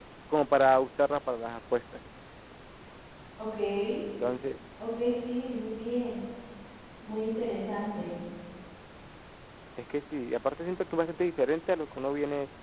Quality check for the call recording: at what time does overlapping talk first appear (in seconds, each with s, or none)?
none